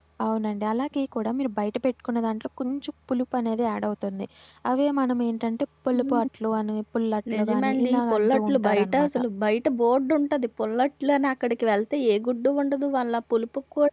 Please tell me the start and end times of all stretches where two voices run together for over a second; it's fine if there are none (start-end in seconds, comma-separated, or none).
7.3-9.2